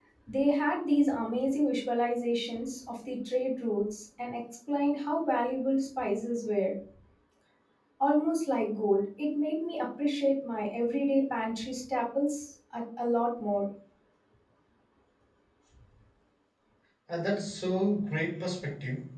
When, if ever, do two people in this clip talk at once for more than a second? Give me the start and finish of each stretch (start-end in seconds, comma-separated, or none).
none